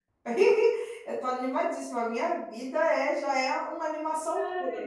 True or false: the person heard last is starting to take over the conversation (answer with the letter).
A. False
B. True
A